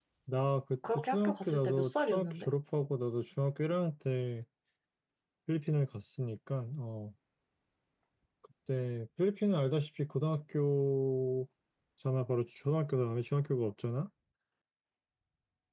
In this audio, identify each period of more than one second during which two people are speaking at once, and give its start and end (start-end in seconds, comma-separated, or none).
0.9-2.5